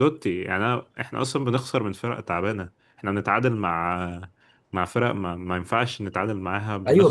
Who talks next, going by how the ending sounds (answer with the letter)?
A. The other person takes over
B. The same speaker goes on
A